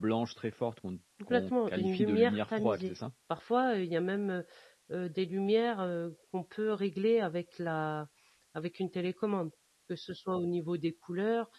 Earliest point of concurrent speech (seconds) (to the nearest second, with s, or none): 1 s